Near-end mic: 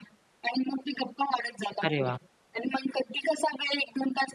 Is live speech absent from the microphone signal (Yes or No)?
No